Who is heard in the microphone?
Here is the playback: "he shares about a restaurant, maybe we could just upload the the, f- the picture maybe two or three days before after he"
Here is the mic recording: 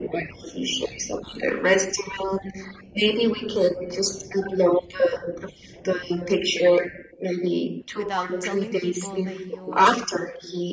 both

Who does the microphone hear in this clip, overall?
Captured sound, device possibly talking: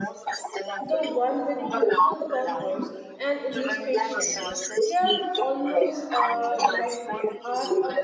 both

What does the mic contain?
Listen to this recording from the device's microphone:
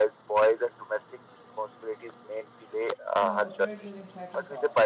both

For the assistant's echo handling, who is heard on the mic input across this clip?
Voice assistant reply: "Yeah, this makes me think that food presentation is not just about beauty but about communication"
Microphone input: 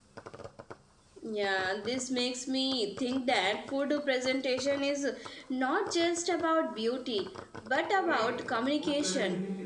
both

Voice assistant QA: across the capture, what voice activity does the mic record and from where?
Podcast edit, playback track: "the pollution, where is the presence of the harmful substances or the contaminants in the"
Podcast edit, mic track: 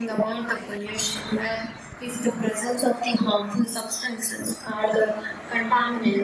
echo only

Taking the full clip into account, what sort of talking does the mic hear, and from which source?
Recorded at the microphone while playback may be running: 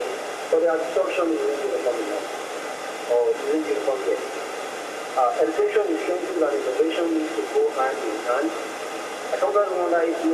echo only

